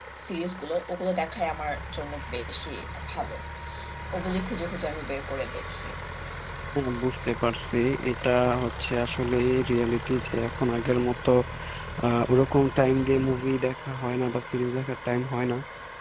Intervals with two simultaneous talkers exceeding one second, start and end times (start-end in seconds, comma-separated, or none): none